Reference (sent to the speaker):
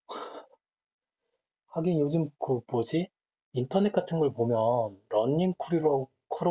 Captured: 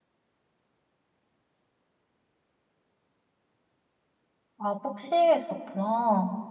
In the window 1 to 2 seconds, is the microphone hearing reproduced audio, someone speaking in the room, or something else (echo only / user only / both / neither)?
neither